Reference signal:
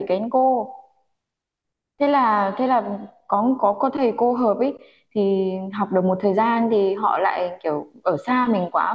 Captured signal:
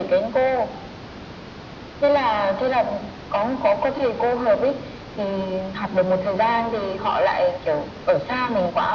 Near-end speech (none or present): none